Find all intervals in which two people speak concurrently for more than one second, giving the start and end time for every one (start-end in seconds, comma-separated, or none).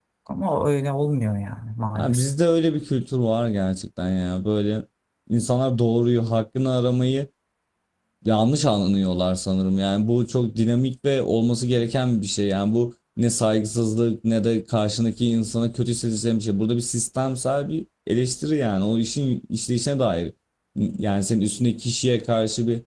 none